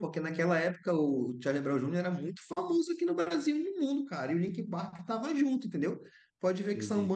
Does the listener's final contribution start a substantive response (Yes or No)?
No